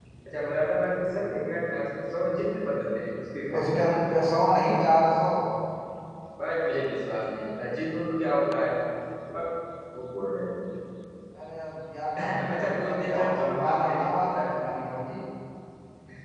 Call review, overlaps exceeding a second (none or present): present